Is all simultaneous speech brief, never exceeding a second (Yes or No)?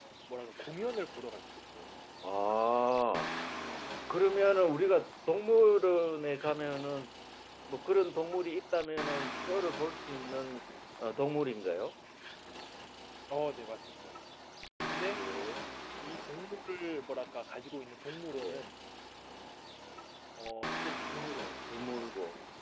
Yes